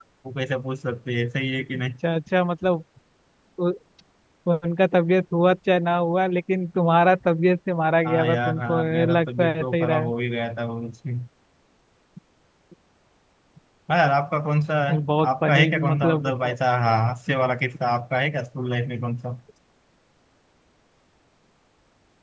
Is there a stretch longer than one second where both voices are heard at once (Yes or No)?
Yes